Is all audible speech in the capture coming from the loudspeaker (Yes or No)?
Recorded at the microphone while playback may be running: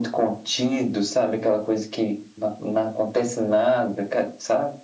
Yes